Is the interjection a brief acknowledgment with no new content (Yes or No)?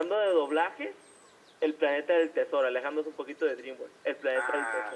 No